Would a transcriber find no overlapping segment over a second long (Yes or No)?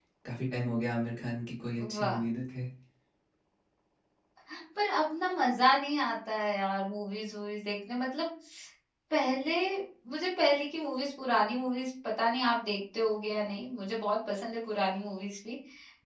Yes